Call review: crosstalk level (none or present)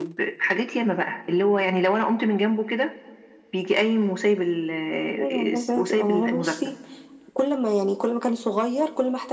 present